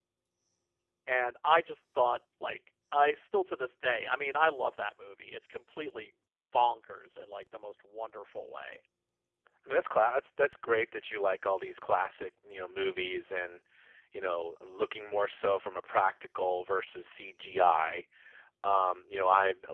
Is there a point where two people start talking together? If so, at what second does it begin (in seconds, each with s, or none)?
none